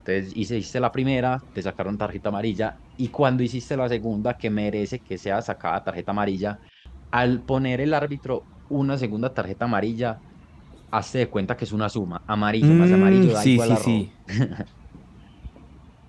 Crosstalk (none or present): present